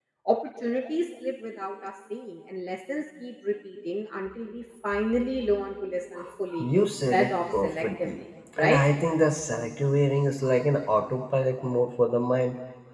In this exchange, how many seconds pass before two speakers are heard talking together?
7 s

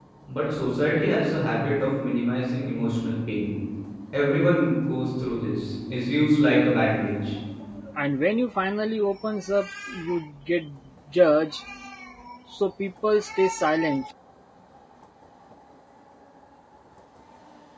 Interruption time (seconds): none

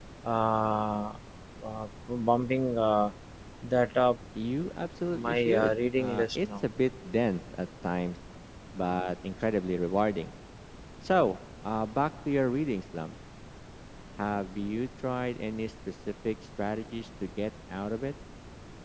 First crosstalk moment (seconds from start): 5 s

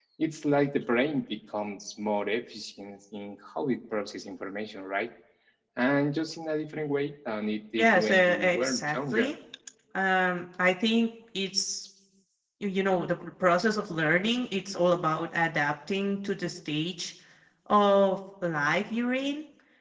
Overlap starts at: 8 s

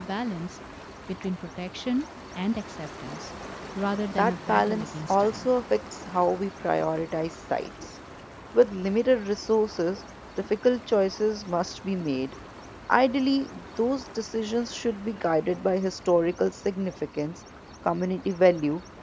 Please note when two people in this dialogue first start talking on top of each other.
4 s

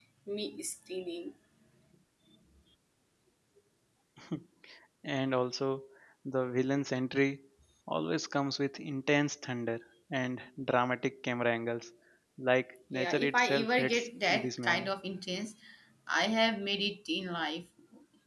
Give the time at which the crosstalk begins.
13 s

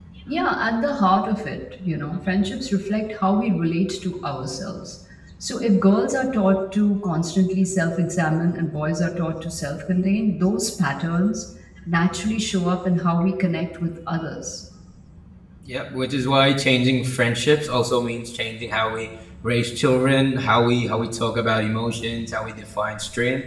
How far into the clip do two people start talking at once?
none

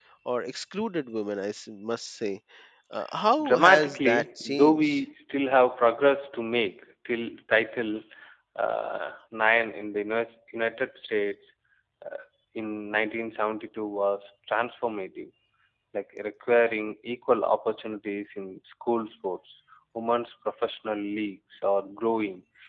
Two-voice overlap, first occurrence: 3 s

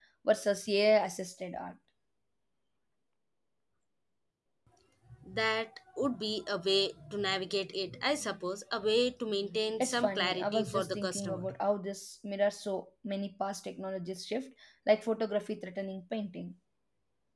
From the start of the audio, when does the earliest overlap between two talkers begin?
10 s

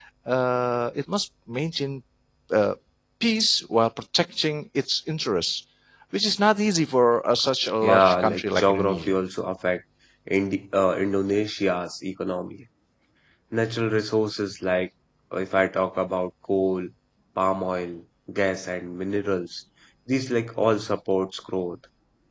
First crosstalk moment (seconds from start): 8 s

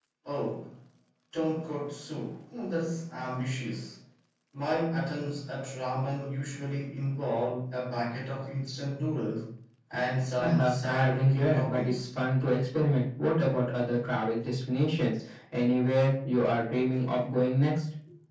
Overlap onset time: 10 s

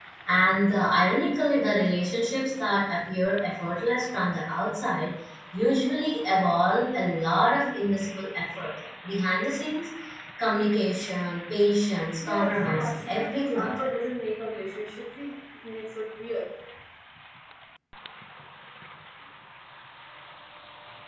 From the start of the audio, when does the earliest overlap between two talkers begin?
12 s

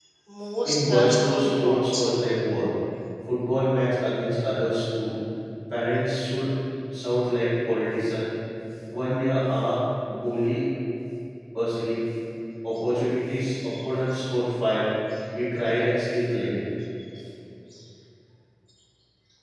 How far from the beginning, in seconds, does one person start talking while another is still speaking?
1 s

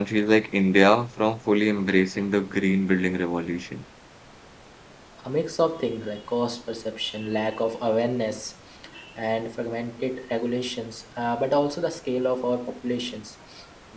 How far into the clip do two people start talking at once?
none

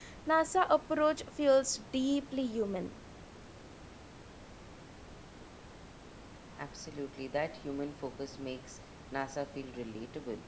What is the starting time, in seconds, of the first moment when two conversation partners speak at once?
none

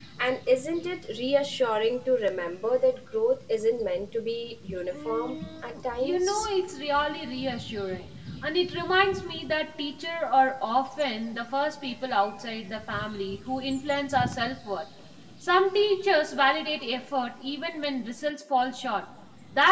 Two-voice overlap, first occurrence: 5 s

